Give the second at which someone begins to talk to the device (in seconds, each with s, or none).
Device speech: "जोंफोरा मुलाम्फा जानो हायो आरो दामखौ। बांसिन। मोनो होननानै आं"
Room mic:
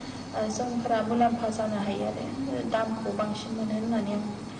none